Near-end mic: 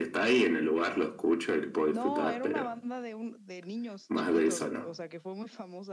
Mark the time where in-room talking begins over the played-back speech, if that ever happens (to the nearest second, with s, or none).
2 s